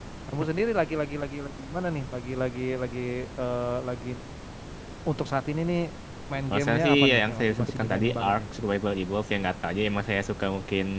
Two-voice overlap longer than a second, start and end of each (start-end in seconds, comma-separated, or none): 6.5-8.4